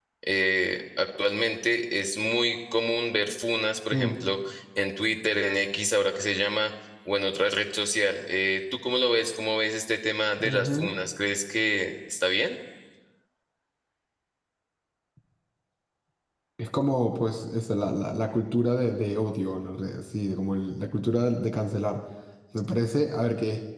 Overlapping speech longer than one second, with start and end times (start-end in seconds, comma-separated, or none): none